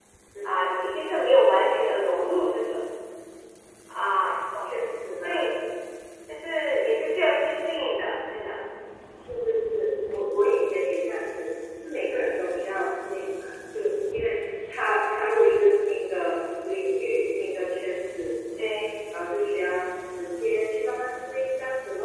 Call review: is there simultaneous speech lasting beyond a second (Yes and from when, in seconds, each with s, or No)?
No